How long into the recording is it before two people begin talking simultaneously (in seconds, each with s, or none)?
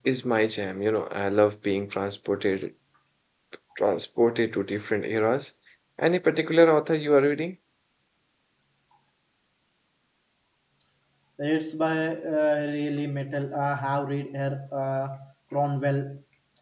none